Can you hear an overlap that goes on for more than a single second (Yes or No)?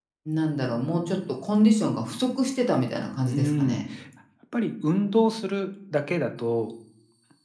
No